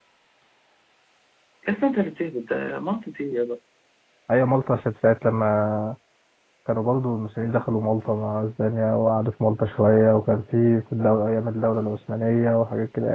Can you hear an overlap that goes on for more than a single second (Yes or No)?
No